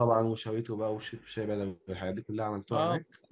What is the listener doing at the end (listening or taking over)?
taking over